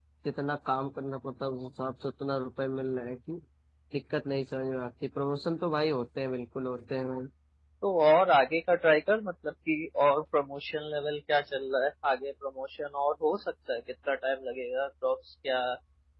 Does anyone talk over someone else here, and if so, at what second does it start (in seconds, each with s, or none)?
none